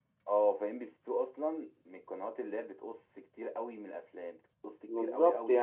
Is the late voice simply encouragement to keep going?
No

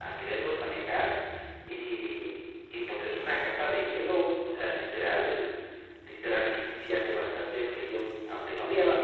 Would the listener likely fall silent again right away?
No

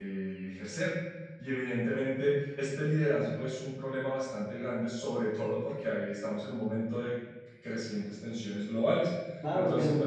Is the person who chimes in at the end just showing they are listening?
No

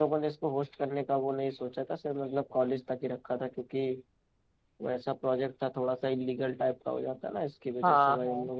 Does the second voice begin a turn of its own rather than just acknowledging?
Yes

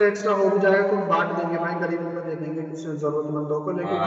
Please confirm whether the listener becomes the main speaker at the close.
Yes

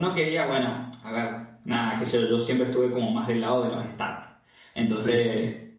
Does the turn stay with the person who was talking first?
Yes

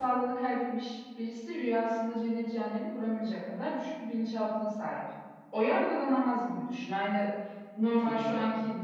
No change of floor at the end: Yes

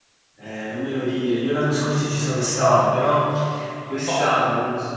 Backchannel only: Yes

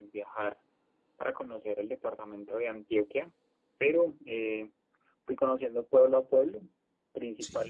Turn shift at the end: No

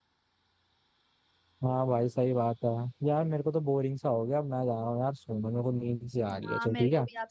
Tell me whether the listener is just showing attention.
No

